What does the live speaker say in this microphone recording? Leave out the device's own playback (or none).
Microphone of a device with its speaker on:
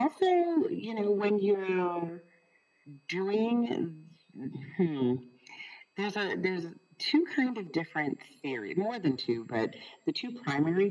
none